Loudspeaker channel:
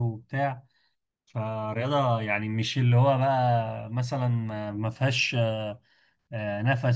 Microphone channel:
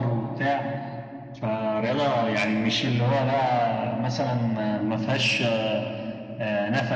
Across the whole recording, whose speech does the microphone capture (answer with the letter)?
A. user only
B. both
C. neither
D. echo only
D